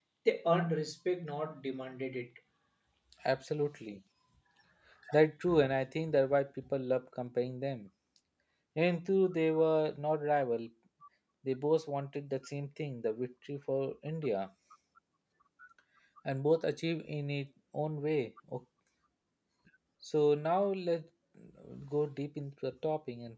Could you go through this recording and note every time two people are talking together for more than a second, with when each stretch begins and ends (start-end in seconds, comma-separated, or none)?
none